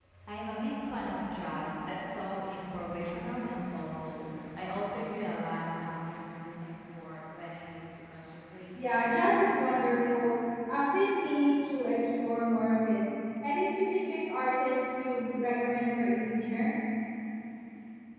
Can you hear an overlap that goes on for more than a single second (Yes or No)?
Yes